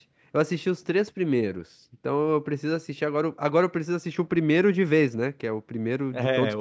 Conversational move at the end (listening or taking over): taking over